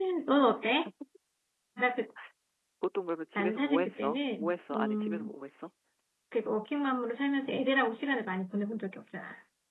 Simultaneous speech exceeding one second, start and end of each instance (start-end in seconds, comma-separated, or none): 3.4-5.3